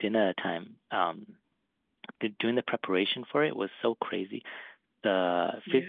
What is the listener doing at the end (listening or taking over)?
listening